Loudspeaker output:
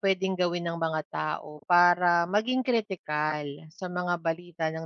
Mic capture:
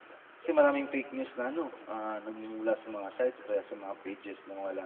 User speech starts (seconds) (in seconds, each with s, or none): 0.4 s